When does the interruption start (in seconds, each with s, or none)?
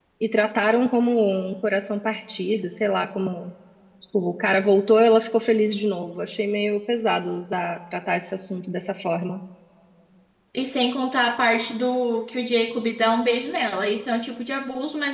none